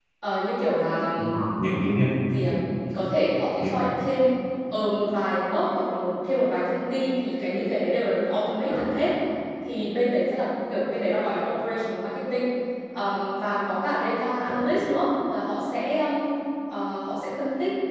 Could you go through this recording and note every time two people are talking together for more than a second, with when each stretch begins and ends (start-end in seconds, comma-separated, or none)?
none